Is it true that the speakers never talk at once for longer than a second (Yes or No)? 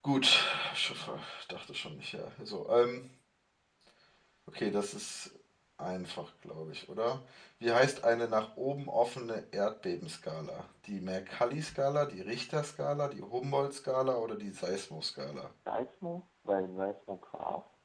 Yes